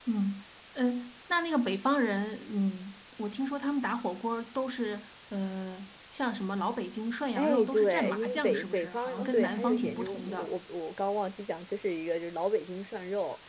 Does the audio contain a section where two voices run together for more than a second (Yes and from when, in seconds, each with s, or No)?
Yes, from 7.3 s